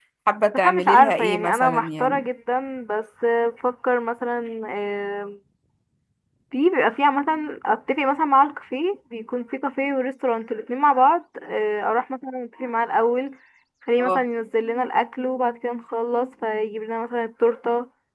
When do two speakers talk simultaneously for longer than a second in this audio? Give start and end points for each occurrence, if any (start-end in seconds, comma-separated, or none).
0.5-2.2